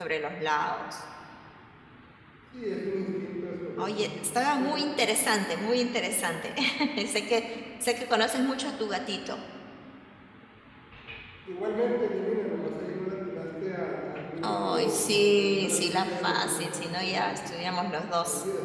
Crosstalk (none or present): present